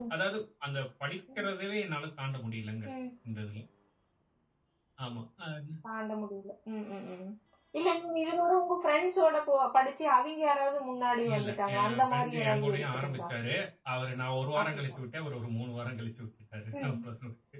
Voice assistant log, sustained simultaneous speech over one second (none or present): present